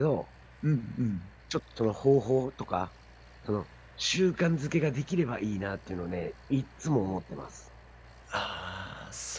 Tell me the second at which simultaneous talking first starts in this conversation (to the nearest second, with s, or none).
none